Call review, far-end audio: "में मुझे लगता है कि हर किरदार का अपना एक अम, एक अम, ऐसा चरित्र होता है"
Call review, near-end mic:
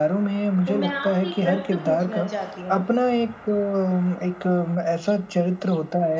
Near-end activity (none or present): present